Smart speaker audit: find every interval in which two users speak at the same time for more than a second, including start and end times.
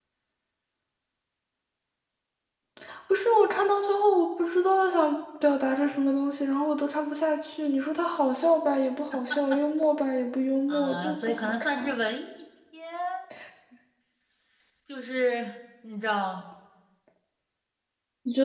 10.7-11.9

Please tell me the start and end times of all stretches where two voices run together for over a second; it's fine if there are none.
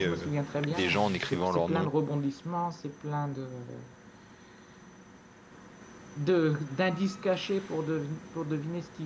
0.7-1.9

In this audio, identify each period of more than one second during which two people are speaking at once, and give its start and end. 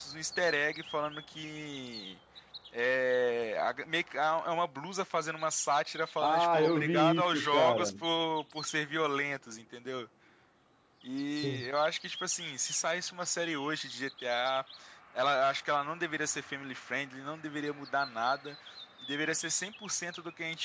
6.2-7.9

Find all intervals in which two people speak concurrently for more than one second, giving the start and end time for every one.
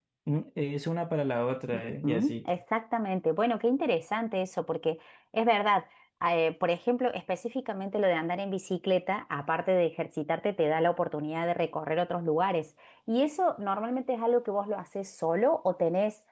none

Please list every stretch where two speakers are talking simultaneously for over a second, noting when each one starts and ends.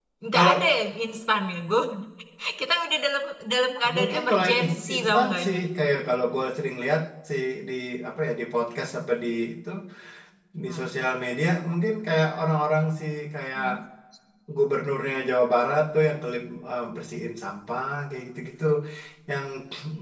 4.0-5.6

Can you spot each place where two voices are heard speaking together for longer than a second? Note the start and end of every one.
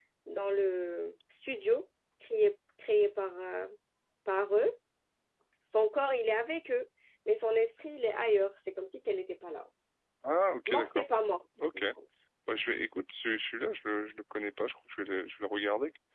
none

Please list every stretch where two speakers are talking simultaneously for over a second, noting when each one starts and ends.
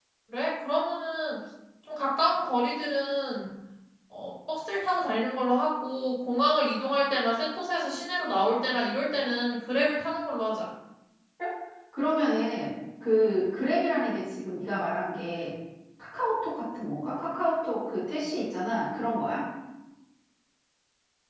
none

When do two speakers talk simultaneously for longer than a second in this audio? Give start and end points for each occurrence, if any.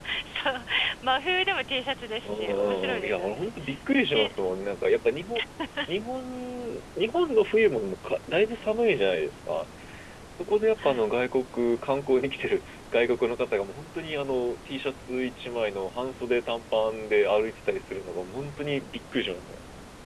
2.2-3.5

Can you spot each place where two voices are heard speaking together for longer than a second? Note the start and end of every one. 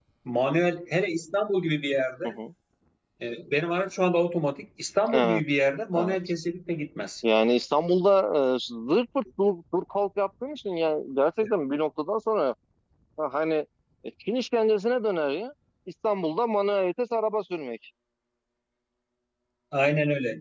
none

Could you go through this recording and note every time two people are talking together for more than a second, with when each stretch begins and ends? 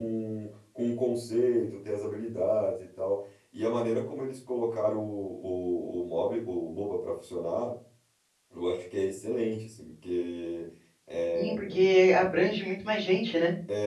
none

